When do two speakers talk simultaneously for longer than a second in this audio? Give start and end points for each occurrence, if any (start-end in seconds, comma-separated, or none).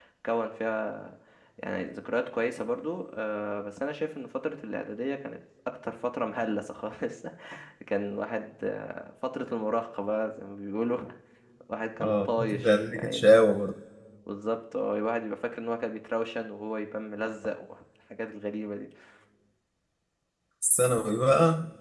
12.0-13.3